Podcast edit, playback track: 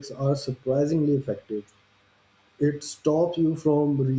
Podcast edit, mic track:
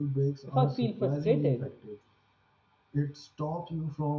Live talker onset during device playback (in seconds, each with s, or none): 0.5 s